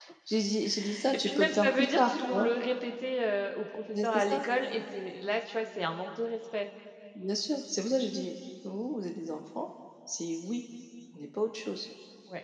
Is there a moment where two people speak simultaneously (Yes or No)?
Yes